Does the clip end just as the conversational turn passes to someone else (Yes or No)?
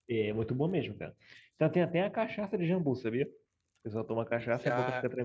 Yes